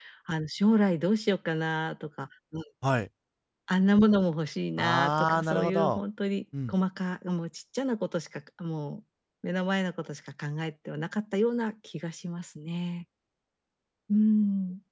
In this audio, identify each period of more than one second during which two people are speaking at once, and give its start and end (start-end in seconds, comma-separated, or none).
4.8-6.0